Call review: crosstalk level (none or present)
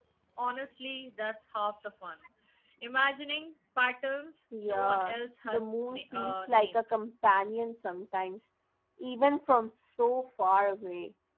present